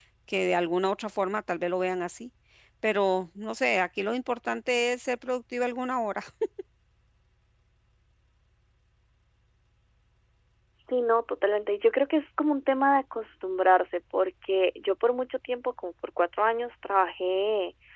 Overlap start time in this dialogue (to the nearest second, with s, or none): none